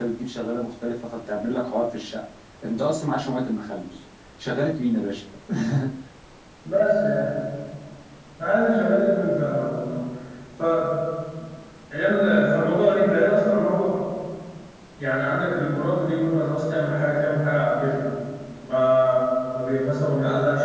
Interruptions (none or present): none